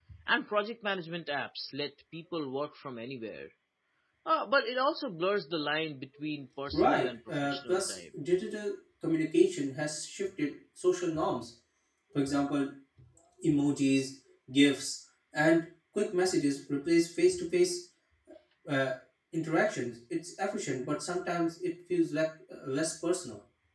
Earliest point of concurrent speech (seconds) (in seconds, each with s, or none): 6.7 s